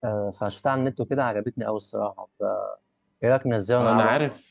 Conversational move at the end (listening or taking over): taking over